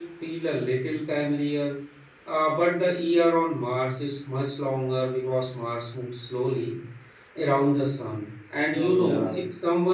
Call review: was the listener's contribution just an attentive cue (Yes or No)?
Yes